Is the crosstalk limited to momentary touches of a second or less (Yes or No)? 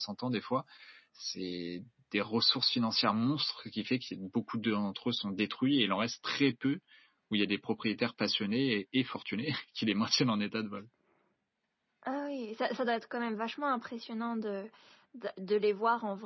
Yes